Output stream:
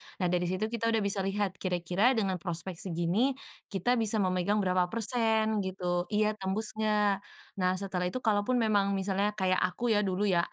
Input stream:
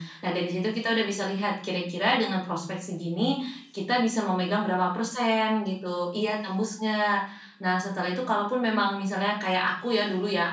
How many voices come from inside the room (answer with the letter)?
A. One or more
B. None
B